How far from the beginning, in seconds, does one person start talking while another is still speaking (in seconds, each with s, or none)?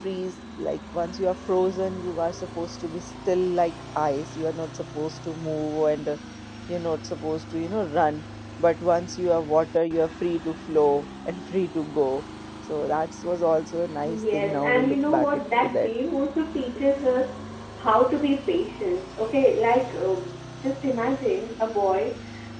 14.1 s